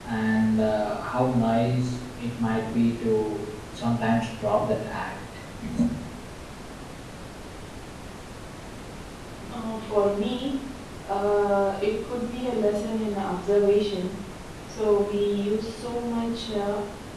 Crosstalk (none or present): none